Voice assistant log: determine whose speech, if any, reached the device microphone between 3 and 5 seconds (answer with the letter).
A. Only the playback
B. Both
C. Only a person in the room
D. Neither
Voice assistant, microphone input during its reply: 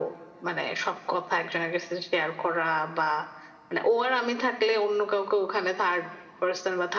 A